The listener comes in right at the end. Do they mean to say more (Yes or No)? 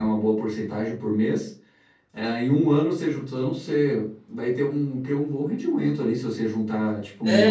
Yes